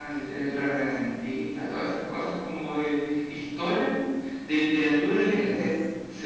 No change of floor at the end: No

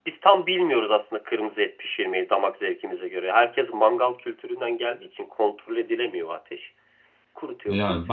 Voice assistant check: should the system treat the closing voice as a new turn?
Yes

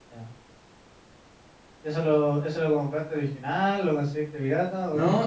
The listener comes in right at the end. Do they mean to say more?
Yes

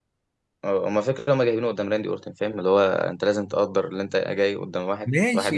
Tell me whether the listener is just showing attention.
No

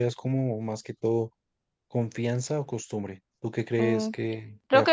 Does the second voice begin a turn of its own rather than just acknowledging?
Yes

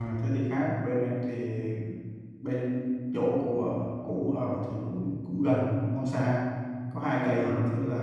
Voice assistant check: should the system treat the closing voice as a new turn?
No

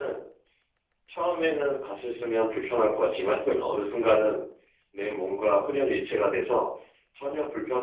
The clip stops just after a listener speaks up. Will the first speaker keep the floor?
Yes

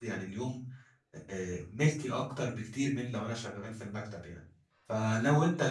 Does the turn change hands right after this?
No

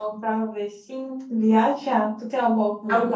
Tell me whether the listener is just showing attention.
Yes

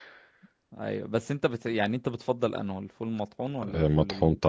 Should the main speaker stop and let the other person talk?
Yes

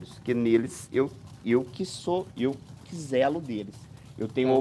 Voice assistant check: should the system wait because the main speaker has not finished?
Yes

